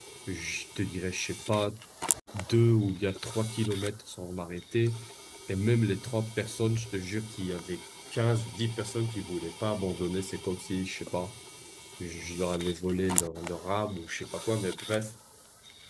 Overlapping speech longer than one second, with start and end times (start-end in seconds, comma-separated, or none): none